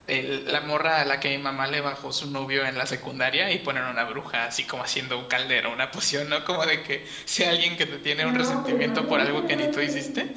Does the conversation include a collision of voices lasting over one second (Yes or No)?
Yes